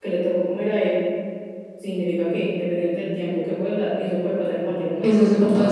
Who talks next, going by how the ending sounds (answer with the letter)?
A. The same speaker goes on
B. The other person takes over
B